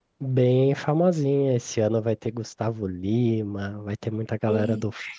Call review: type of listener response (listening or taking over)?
listening